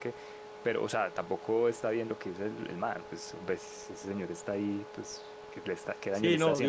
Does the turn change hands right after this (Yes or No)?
Yes